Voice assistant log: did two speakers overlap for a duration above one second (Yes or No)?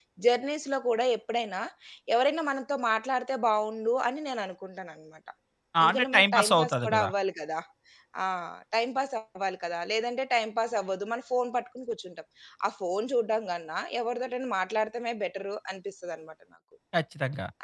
Yes